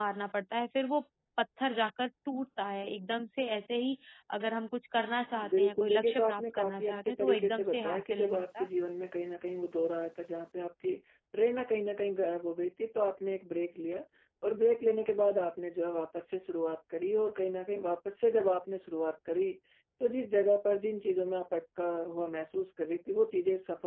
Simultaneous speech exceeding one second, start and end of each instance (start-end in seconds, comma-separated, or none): 5.6-8.7